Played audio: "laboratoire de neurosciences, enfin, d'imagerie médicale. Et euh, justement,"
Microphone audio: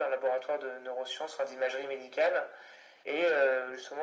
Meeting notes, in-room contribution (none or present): none